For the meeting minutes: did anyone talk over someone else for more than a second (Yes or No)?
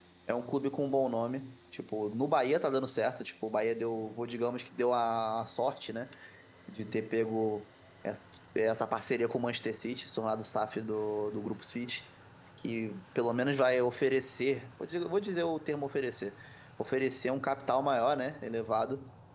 No